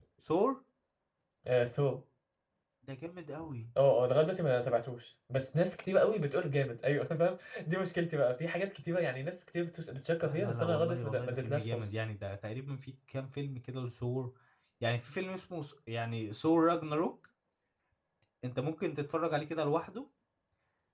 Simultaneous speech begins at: 10.2 s

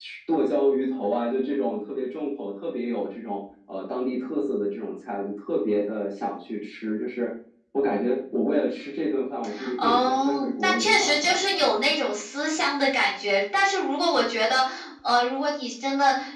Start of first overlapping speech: 9.5 s

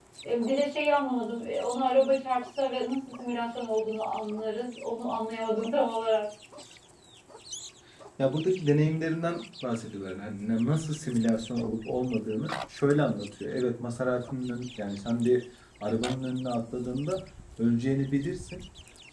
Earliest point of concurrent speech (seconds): none

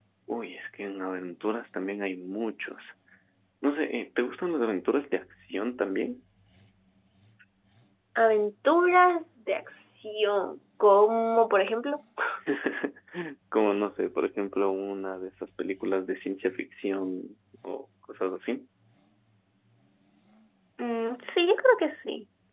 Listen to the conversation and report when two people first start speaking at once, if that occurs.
none

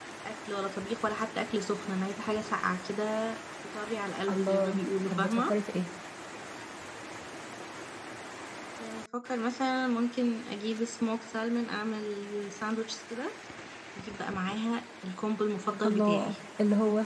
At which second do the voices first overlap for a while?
4.3 s

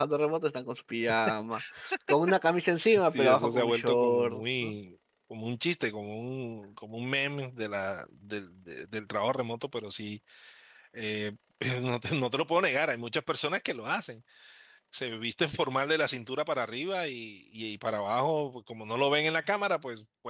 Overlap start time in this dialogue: 2.8 s

